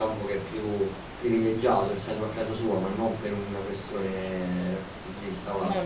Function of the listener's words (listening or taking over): listening